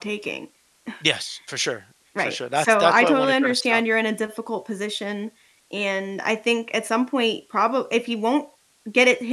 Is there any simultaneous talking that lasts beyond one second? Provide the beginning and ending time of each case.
2.2-3.8

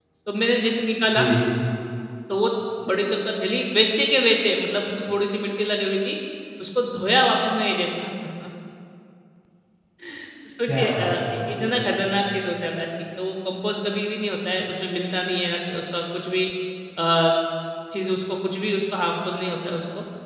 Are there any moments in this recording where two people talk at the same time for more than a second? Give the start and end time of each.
10.7-12.0

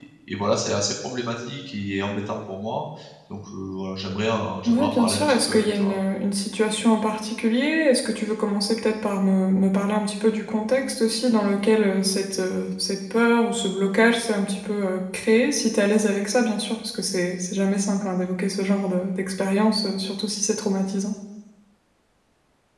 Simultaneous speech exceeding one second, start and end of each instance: 4.6-6.0

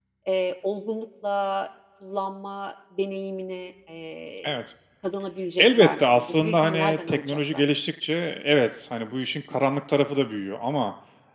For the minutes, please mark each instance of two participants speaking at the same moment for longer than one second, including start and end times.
5.6-7.6

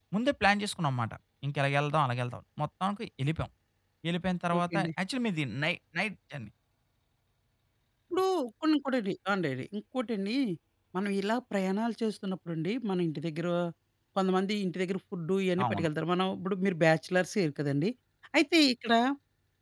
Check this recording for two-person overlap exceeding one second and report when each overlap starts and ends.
none

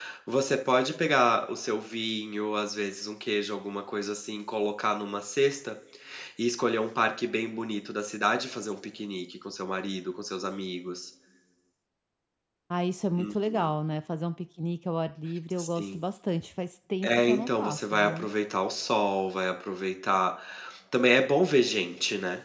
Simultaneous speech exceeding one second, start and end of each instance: 17.0-18.3

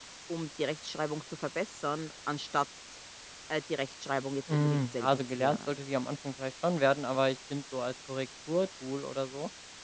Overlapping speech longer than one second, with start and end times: 4.5-5.8

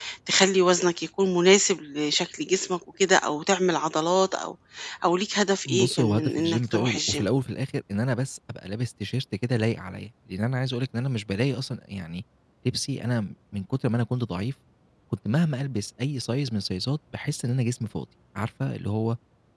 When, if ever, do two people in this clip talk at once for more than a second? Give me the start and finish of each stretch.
5.8-7.2

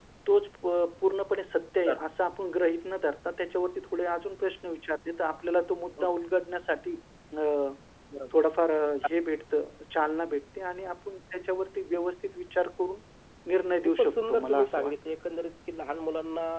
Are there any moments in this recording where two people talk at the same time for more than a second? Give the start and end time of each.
13.5-14.9

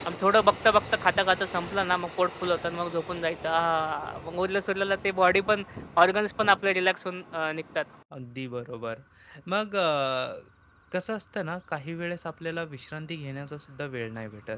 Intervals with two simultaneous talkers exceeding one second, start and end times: none

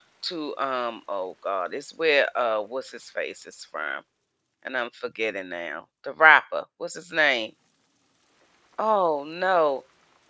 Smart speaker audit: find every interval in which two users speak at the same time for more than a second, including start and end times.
none

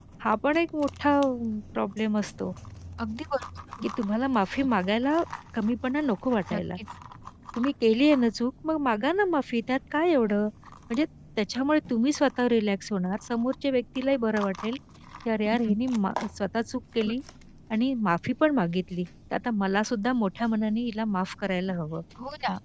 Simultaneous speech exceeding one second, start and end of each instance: none

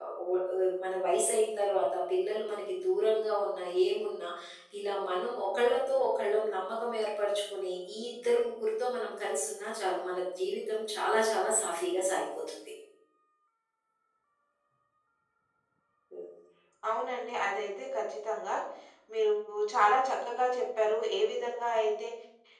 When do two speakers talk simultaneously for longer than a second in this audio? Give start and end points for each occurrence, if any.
none

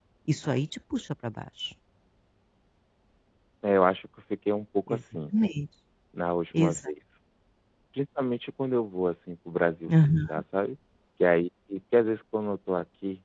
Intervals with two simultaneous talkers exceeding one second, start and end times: none

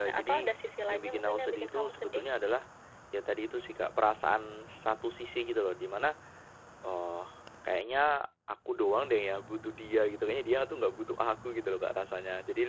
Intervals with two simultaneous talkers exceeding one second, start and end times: 0.9-2.2

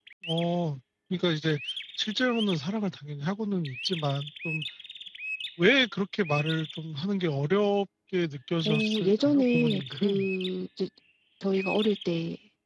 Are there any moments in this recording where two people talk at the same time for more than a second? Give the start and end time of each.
8.7-10.3

